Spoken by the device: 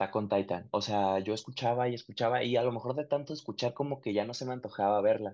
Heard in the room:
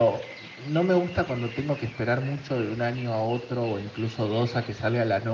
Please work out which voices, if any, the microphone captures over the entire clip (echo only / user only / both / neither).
user only